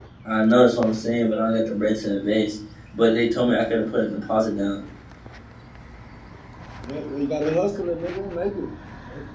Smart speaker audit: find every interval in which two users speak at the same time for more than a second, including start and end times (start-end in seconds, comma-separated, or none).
none